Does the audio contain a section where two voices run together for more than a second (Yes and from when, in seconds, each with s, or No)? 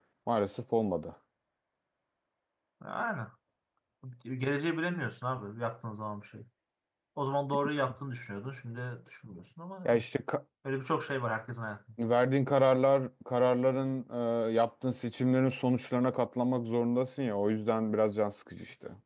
No